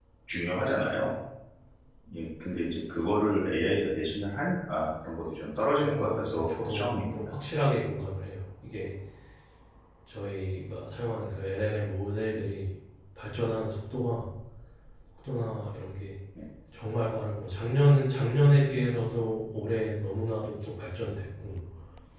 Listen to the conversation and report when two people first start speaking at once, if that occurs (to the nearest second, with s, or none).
6 s